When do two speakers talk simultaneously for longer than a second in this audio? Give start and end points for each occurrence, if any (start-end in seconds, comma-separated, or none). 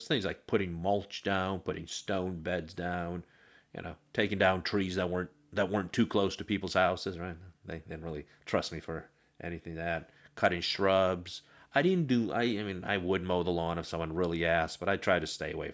none